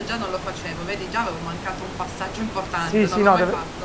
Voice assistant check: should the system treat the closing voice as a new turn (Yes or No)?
Yes